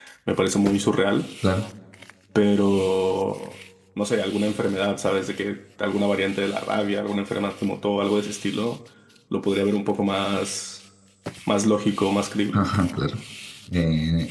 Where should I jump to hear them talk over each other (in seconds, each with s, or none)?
none